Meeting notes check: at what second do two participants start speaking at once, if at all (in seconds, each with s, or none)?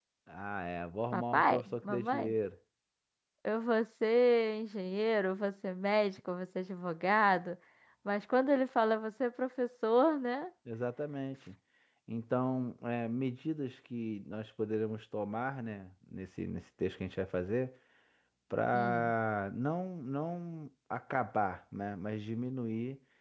1.1 s